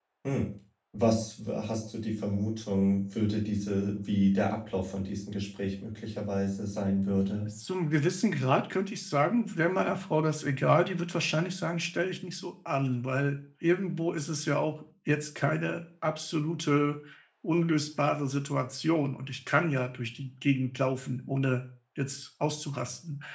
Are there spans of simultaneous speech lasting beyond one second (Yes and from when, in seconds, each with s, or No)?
No